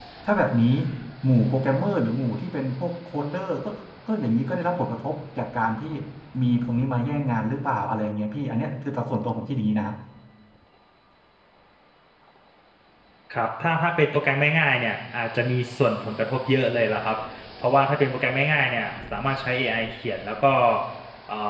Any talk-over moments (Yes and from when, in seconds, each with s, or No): No